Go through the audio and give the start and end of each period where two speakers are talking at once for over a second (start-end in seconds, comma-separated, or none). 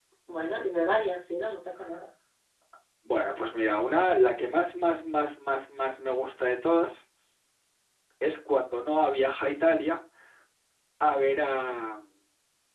none